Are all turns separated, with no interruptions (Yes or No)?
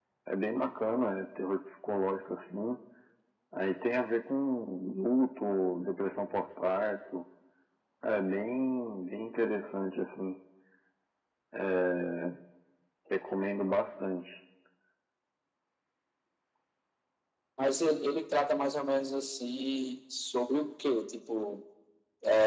Yes